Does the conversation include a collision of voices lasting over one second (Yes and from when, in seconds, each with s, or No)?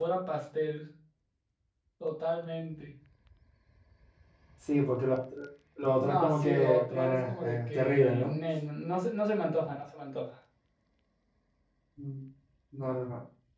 Yes, from 6.0 s